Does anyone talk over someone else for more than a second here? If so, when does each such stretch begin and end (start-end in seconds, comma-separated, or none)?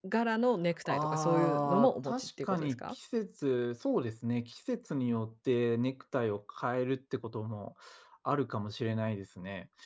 0.8-3.0